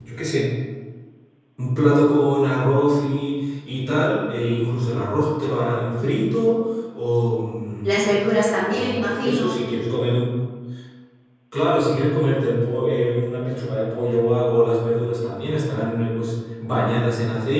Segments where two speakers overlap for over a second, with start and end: 7.8-9.6

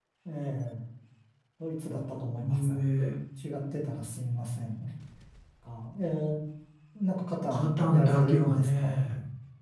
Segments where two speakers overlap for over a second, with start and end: 7.5-8.9

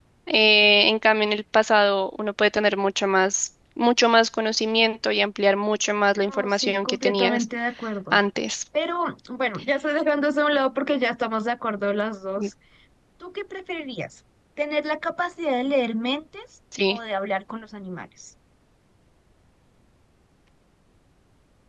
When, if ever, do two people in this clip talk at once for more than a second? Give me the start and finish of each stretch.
6.2-7.5

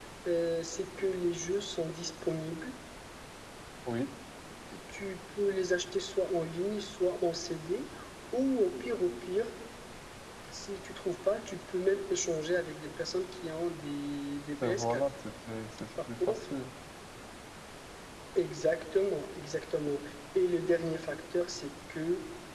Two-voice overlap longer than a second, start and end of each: none

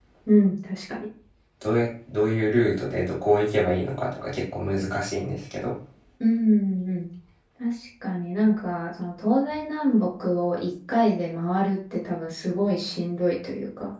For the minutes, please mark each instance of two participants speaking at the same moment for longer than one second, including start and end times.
none

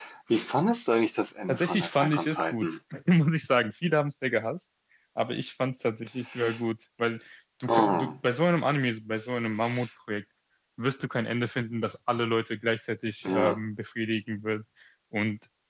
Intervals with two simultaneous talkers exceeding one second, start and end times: 1.5-2.8

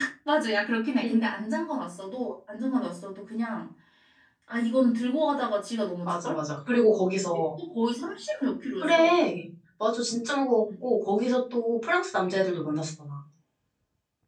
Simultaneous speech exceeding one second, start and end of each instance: none

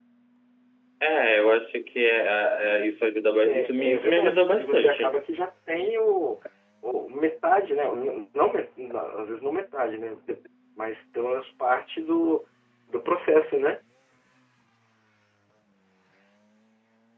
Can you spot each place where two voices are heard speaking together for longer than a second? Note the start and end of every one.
3.3-5.1

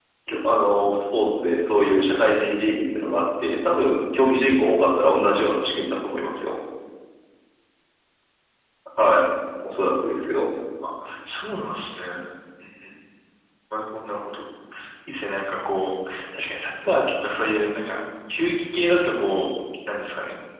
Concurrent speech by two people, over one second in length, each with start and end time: none

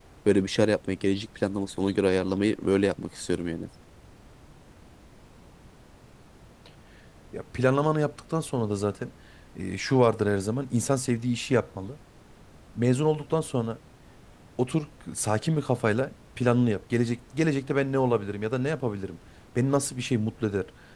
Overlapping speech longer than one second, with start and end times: none

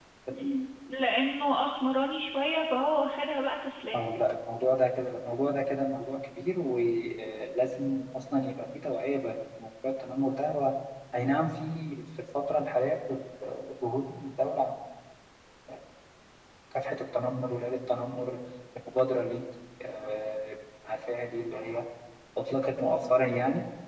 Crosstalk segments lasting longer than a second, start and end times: none

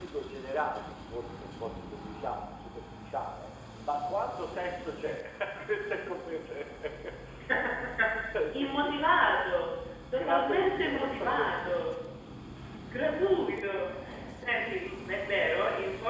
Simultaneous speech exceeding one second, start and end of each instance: 10.2-11.8

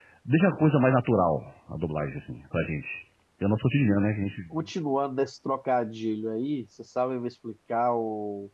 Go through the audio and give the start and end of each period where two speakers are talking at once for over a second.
none

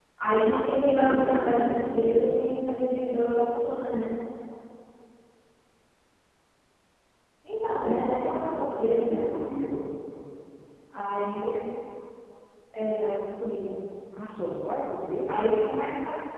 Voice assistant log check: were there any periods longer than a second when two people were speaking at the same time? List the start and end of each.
0.8-2.3, 7.8-9.5

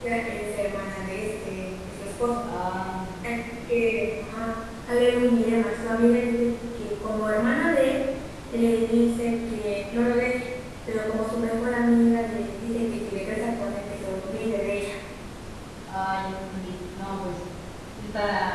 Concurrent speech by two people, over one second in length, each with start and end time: none

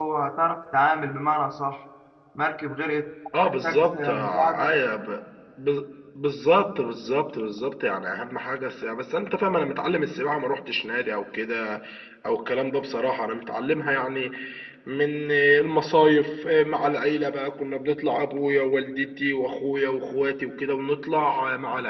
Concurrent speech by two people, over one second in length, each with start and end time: 3.4-4.7

